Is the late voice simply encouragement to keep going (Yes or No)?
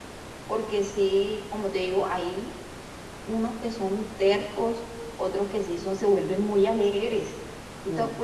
Yes